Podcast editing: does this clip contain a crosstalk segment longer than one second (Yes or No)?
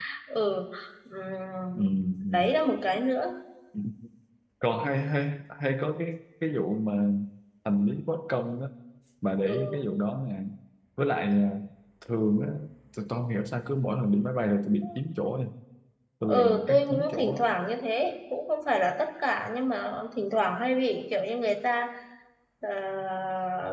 Yes